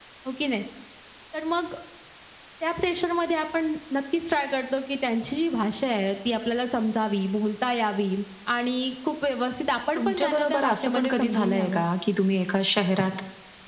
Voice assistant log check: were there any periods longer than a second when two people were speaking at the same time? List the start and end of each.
10.0-11.8

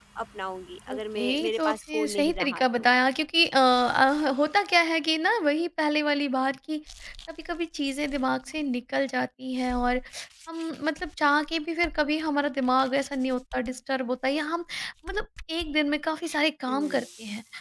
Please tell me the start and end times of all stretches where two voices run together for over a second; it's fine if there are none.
0.9-2.6

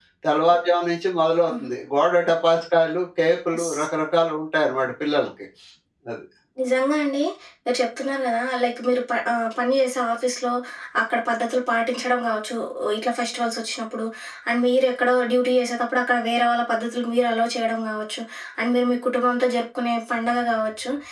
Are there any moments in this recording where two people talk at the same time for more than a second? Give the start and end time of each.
none

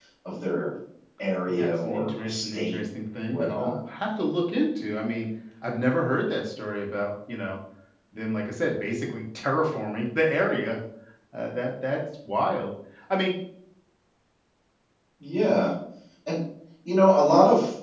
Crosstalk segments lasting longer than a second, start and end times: 1.5-2.8

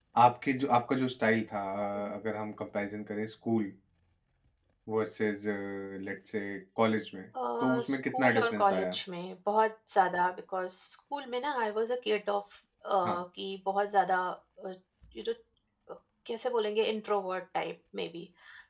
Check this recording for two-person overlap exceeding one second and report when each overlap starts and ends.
7.6-8.9

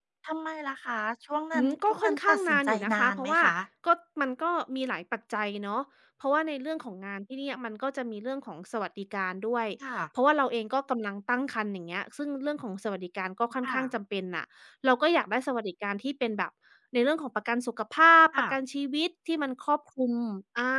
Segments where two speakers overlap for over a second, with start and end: 1.5-3.4

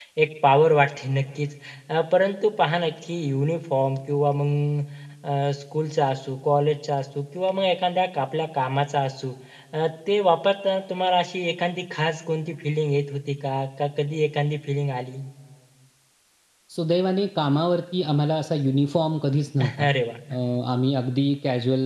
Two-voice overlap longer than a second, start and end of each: none

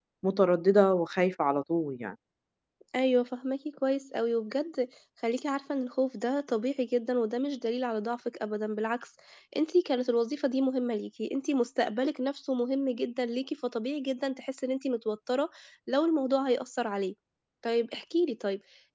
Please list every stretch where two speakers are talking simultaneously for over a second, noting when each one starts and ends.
none

